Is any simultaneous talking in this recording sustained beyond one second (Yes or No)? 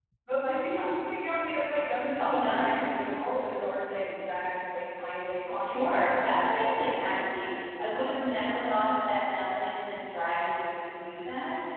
Yes